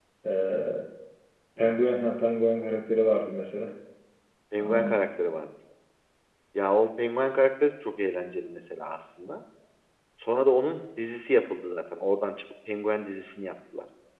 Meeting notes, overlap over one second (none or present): none